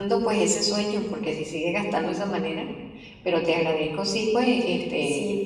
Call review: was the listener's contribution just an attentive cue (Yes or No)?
No